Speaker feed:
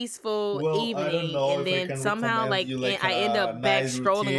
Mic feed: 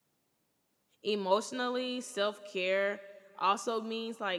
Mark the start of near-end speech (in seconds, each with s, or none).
1.0 s